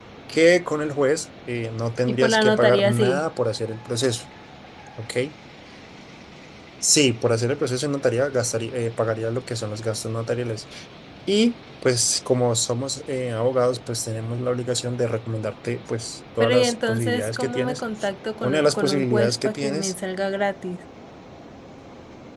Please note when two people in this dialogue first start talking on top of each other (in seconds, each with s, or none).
2.1 s